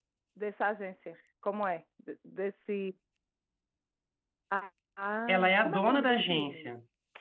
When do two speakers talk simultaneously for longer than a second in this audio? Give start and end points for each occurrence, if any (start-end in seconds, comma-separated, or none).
5.3-6.7